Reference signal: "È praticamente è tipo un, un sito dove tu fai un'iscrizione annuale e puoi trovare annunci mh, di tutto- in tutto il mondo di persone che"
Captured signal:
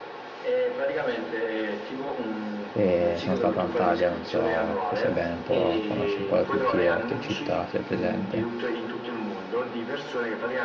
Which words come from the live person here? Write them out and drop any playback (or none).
E sono stato a Antalya, non so se sai bene un po', conosci un po' la Turchia, qualche città, se è presente.